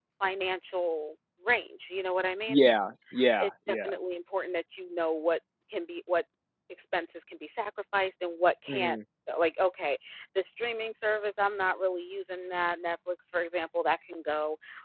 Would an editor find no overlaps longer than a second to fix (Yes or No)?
Yes